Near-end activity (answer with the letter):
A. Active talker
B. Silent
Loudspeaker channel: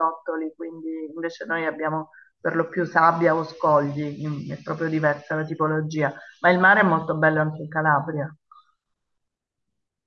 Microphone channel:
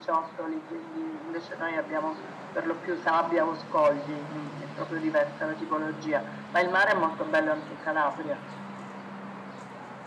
B